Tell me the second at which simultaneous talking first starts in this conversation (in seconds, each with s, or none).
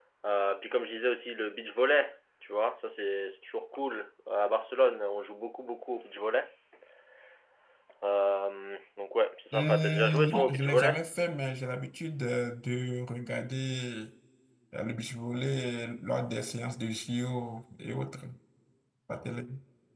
9.5 s